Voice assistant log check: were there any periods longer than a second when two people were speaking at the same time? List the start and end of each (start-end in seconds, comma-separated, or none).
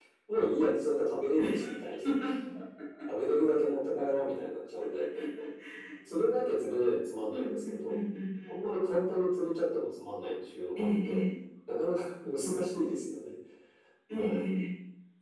none